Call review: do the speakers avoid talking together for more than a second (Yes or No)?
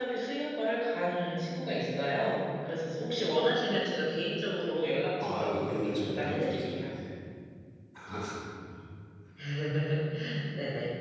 No